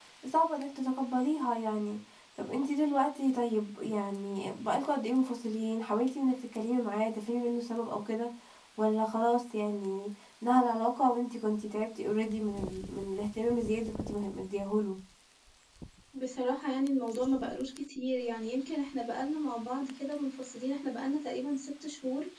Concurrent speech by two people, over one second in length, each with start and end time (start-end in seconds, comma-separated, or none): none